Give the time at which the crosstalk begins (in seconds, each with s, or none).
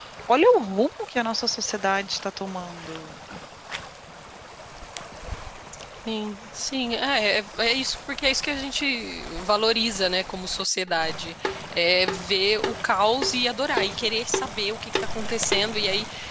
none